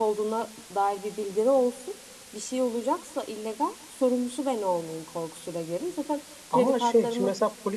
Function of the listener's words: taking over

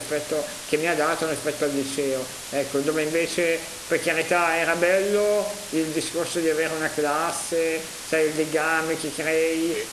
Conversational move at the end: listening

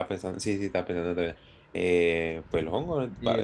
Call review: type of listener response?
taking over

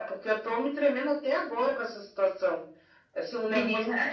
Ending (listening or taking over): listening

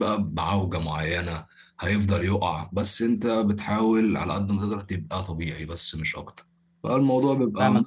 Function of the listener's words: taking over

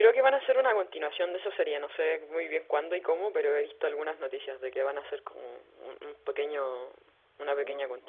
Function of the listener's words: taking over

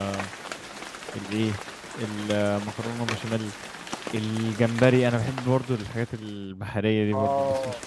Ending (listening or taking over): taking over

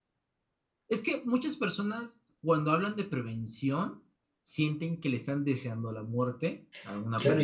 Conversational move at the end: taking over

